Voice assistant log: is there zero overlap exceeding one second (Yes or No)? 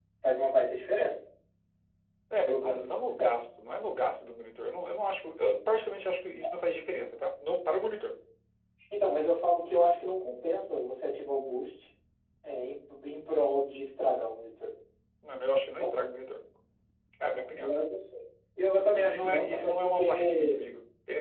No